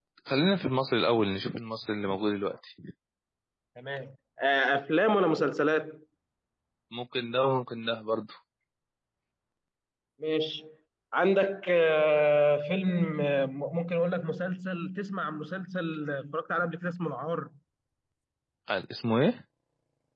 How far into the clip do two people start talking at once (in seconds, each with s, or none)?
none